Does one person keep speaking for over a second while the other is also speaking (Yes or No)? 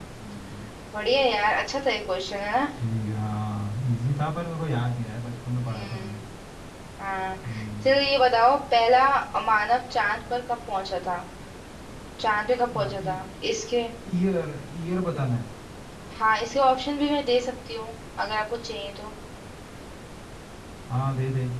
No